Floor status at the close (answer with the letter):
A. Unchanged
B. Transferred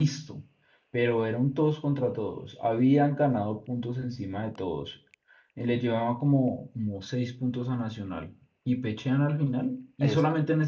A